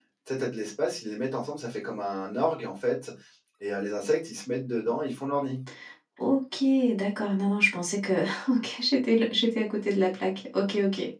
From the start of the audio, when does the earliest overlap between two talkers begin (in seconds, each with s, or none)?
none